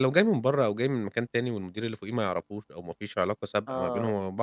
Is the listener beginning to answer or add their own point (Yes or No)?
No